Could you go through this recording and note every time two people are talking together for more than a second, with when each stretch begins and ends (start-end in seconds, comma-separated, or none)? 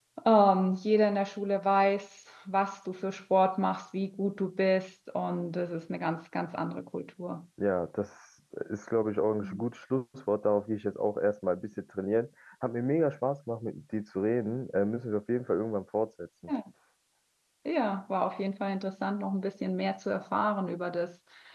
none